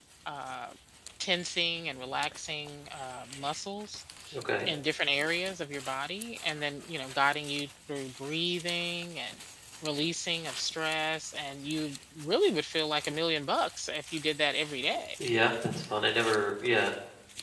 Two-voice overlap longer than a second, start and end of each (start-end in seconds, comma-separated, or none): none